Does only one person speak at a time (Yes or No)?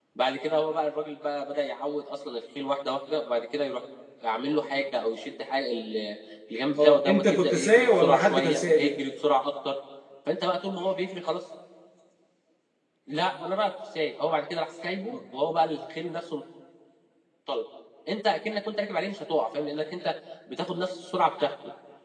No